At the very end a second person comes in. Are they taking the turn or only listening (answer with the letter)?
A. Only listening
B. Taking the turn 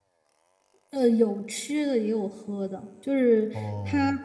A